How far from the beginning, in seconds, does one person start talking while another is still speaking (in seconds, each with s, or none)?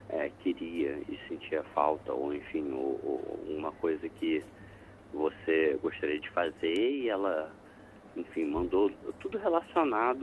none